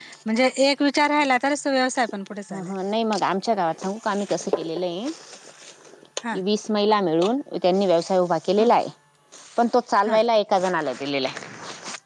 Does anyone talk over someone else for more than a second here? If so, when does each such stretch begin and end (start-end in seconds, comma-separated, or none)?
none